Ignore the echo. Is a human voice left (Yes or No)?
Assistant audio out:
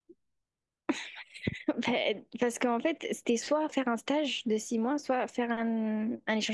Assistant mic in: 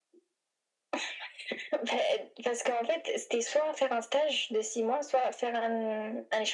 No